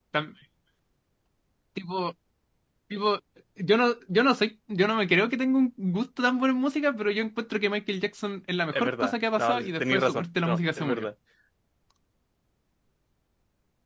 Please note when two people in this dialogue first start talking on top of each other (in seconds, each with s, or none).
8.7 s